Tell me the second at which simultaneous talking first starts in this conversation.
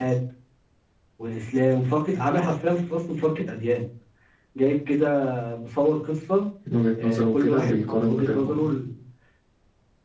7.0 s

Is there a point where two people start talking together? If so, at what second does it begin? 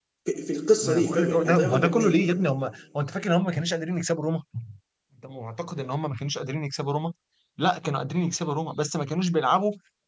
0.8 s

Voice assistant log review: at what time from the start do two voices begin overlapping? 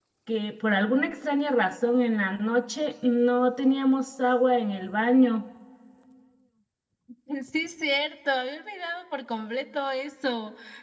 none

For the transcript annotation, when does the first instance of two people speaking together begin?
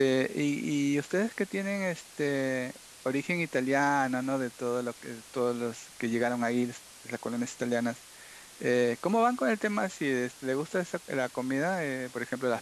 none

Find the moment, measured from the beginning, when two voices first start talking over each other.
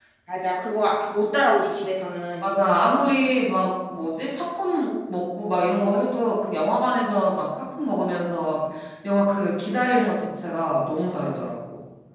none

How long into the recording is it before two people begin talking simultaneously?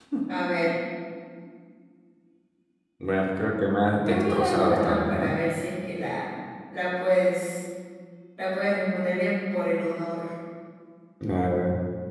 4.0 s

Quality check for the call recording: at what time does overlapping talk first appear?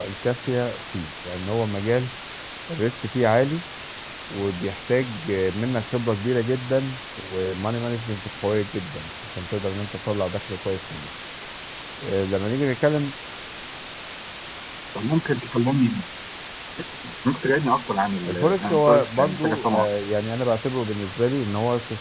18.2 s

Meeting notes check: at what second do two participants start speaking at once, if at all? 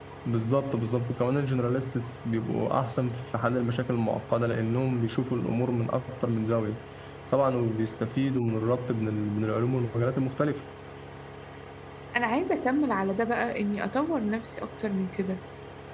none

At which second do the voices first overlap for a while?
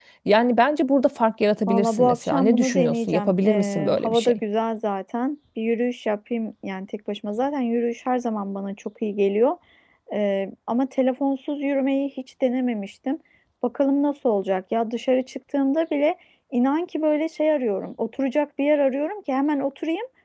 1.7 s

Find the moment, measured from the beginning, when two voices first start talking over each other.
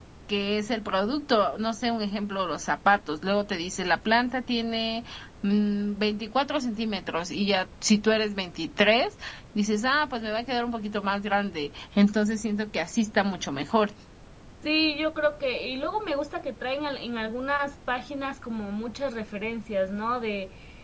none

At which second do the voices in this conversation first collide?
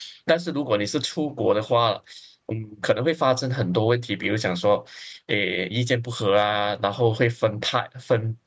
none

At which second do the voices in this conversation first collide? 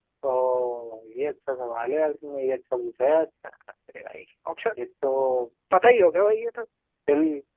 none

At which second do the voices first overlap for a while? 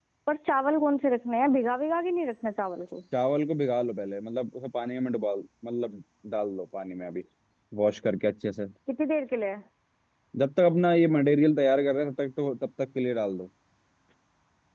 none

